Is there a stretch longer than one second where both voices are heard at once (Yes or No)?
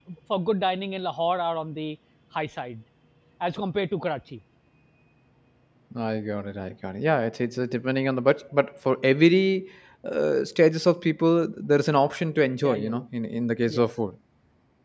No